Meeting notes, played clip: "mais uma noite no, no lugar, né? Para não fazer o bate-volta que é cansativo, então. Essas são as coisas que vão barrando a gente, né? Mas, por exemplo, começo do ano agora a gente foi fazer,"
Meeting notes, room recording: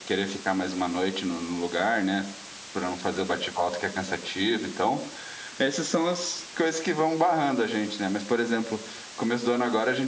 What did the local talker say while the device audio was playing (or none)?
none